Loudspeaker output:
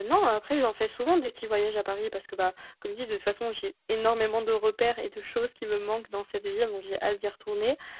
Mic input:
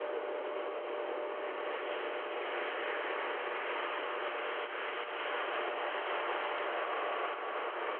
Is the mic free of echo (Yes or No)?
Yes